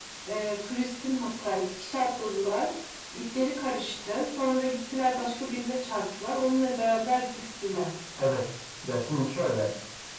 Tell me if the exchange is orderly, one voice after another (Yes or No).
Yes